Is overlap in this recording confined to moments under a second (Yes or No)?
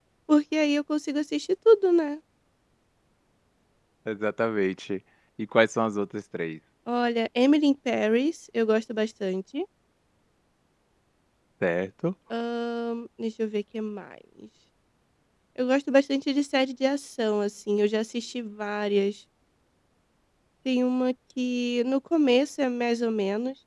Yes